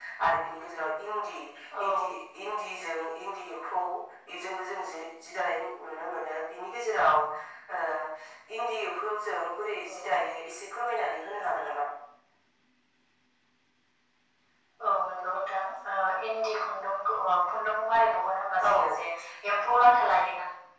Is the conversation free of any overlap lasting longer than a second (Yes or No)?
Yes